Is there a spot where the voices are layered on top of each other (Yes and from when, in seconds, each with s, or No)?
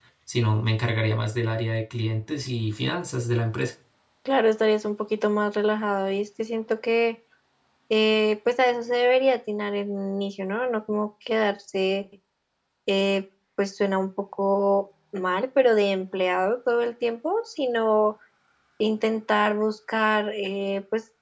No